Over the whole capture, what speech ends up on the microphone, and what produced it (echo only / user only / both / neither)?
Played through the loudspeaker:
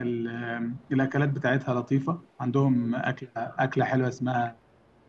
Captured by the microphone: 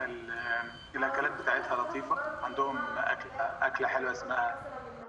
both